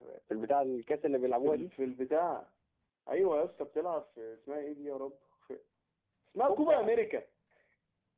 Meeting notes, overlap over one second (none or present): none